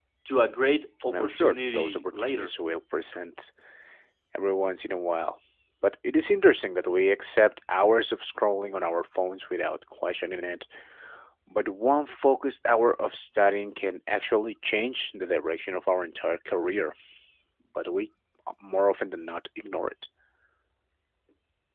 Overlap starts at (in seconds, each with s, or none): 1.0 s